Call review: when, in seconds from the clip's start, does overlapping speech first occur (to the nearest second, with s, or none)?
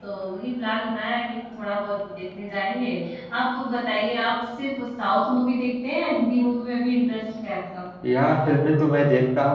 none